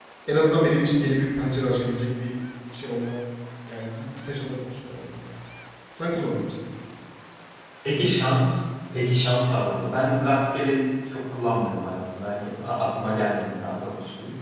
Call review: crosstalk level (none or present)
none